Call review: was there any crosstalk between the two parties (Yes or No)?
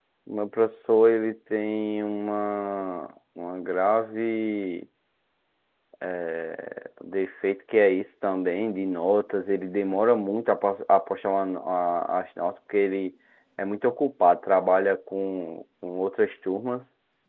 No